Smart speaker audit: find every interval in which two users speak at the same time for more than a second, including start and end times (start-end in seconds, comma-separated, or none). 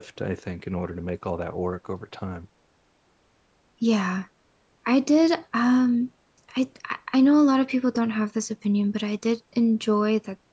none